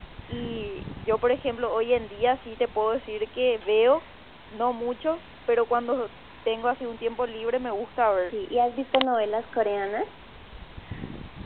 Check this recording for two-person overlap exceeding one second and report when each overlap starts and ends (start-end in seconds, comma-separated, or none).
none